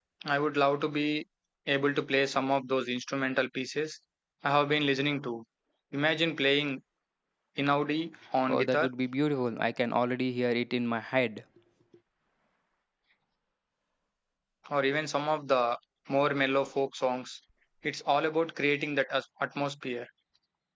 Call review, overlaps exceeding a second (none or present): none